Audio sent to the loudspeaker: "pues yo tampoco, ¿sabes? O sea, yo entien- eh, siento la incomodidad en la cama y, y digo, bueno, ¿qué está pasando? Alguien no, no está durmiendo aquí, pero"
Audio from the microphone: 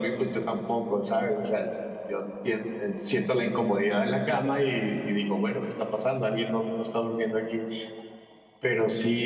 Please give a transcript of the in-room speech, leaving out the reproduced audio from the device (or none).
none